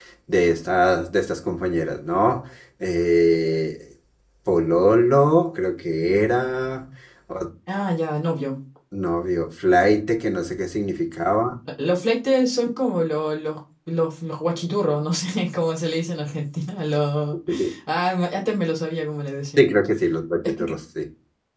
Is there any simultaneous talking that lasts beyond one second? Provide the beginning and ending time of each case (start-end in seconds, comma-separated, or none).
none